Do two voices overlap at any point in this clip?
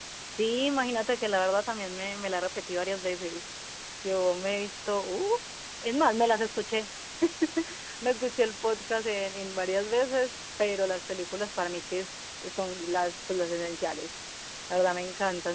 No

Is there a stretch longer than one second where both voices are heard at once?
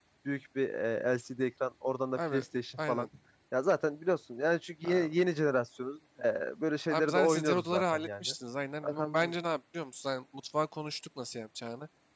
Yes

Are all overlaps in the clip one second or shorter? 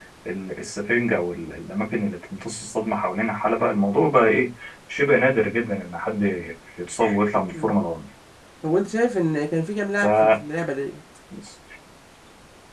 Yes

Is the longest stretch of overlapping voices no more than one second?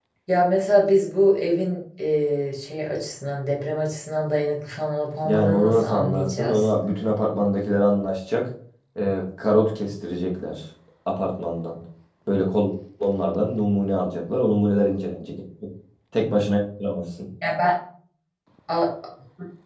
No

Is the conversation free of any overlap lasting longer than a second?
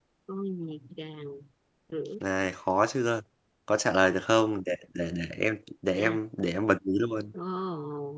Yes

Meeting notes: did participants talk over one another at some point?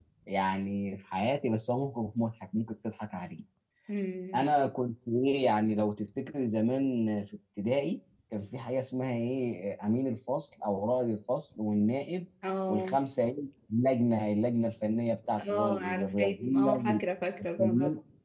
Yes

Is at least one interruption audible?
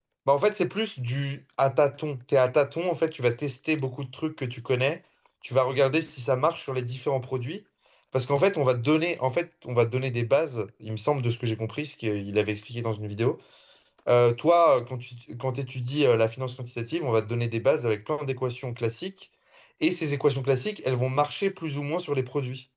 No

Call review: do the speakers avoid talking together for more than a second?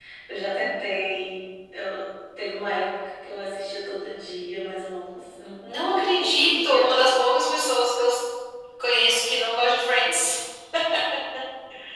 No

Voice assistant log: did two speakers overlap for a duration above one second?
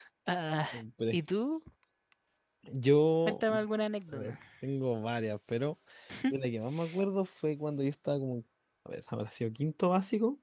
No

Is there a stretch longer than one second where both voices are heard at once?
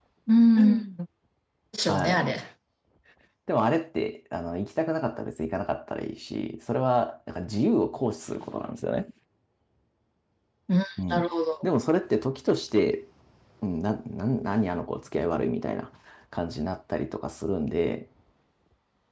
No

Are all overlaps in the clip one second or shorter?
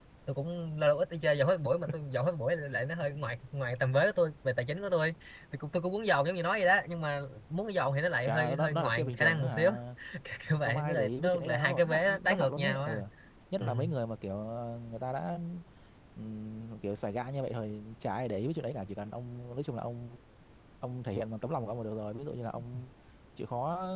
No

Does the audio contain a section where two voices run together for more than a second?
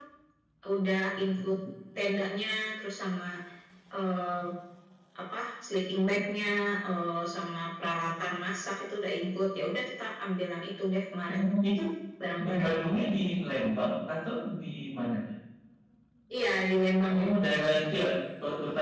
No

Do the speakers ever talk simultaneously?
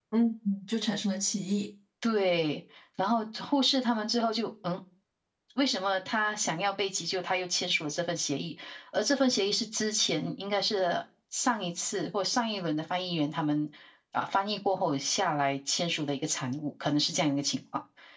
No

